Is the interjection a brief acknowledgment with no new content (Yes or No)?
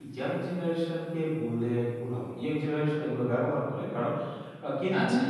Yes